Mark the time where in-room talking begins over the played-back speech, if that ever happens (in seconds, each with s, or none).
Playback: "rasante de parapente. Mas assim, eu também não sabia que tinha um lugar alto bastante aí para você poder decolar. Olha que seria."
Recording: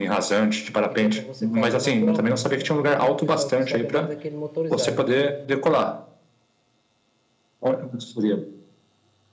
0.9 s